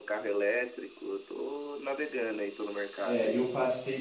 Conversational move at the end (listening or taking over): taking over